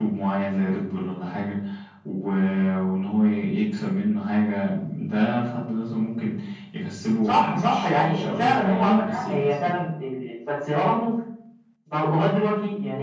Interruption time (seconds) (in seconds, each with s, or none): 7.2 s